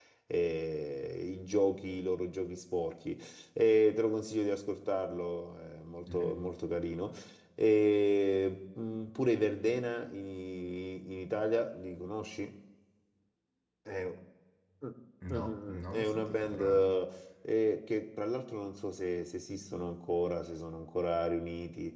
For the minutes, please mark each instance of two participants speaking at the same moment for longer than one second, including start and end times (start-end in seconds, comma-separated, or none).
15.3-17.0